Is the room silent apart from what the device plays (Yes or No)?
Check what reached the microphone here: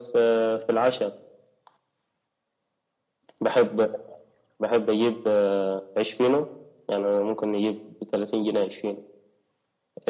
Yes